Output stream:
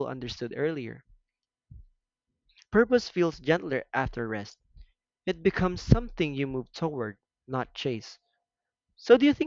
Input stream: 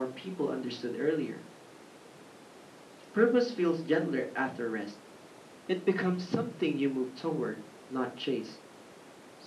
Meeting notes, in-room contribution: none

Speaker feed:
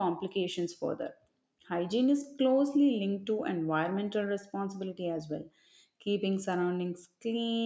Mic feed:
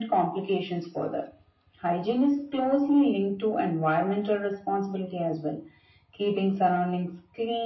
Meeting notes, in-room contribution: none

